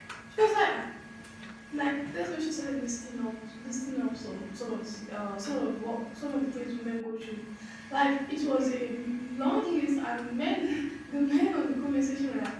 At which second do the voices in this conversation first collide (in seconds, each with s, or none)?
none